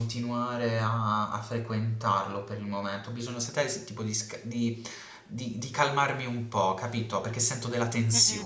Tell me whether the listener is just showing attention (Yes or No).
No